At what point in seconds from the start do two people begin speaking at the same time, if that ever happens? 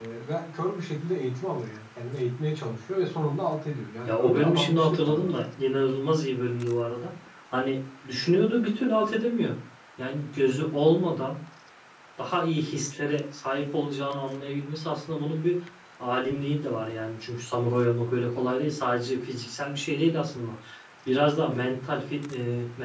4.1 s

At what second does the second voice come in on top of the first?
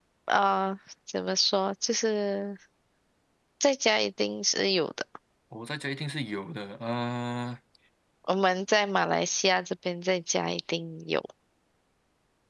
none

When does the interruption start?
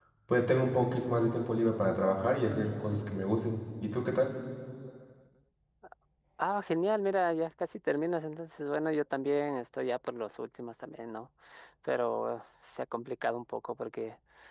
none

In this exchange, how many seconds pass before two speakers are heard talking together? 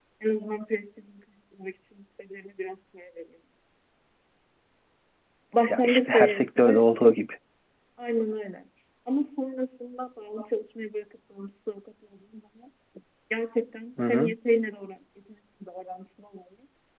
5.7 s

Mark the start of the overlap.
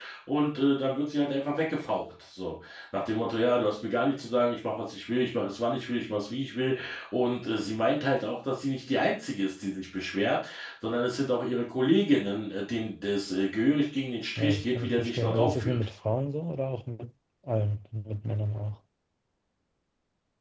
14.4 s

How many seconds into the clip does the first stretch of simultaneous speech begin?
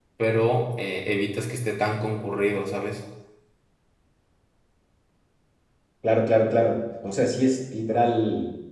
none

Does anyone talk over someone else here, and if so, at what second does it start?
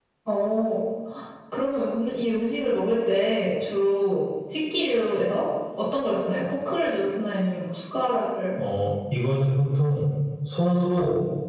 none

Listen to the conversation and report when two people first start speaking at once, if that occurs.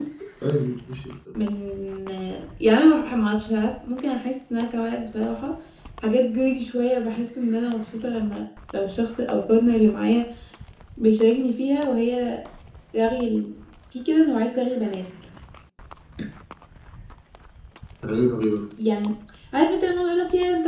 none

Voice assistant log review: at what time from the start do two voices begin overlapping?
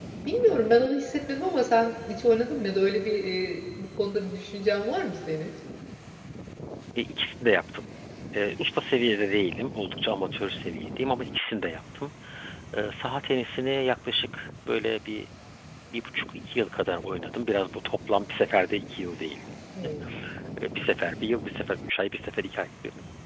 none

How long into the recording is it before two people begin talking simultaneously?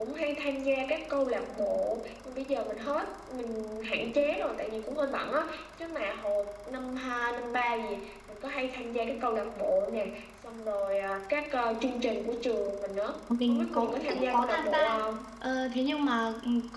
13.3 s

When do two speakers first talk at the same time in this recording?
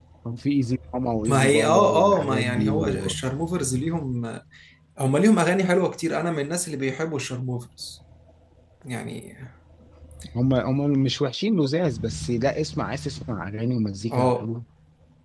1.3 s

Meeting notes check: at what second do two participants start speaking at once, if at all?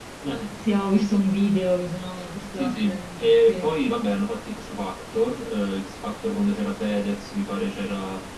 2.5 s

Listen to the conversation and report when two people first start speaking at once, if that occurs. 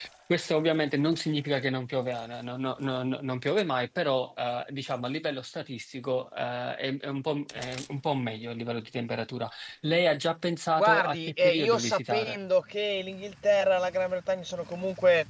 10.8 s

